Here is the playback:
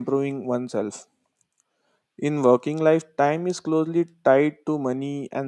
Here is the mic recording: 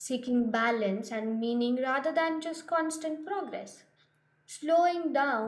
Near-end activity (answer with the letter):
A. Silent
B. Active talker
B